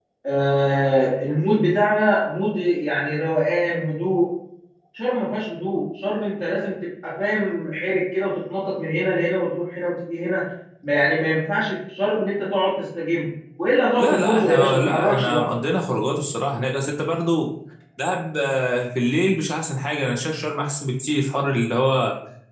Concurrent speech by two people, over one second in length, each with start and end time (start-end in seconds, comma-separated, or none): 14.0-15.5